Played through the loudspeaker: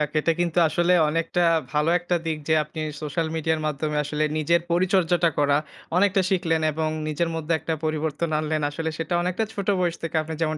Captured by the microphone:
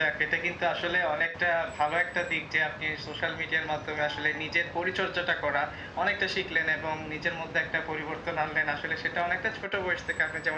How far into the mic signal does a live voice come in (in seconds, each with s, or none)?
none